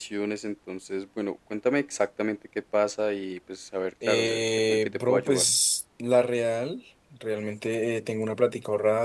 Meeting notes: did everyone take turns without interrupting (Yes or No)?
No